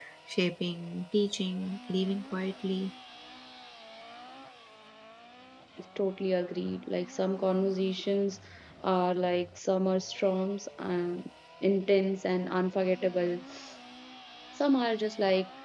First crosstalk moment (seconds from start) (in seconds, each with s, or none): none